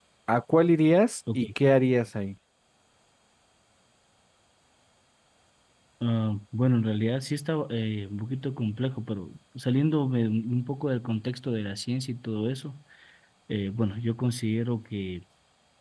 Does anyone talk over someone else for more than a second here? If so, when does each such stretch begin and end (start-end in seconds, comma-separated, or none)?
none